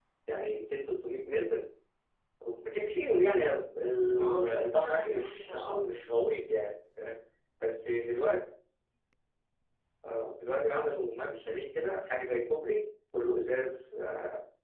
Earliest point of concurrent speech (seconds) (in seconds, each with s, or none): 4.2 s